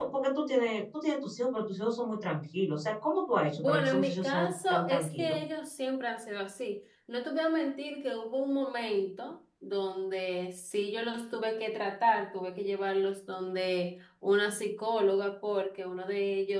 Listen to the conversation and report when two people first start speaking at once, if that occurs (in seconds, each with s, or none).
3.6 s